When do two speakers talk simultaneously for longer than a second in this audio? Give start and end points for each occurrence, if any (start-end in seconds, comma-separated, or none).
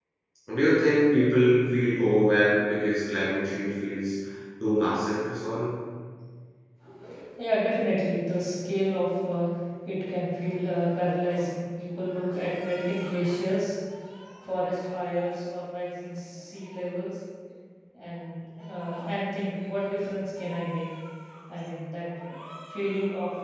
none